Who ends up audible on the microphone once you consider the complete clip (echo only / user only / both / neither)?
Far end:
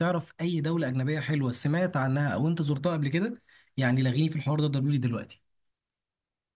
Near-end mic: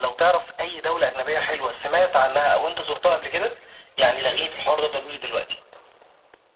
echo only